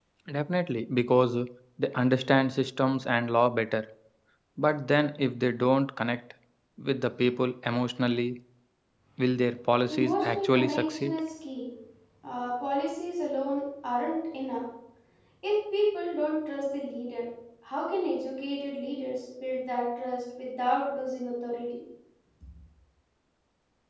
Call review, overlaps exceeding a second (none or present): present